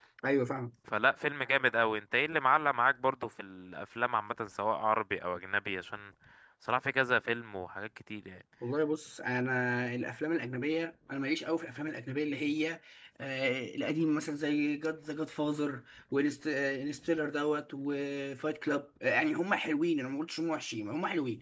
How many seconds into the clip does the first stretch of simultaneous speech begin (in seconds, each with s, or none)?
none